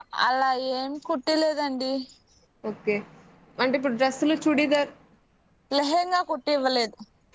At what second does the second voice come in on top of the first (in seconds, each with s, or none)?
none